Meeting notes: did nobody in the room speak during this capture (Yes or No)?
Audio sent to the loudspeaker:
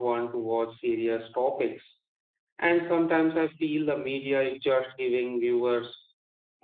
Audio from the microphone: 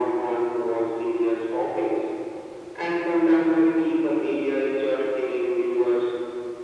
Yes